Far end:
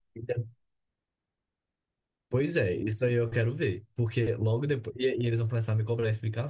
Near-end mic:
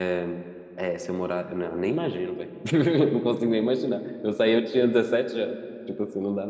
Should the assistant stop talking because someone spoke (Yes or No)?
Yes